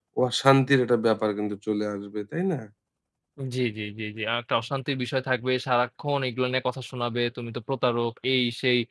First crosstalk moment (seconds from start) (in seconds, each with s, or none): none